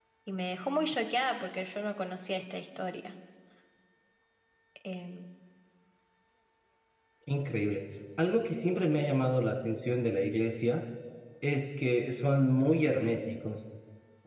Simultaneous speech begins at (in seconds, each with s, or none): none